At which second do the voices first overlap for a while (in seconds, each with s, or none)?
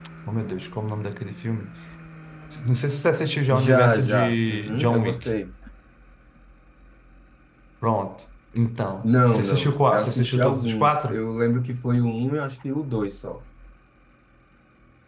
3.5 s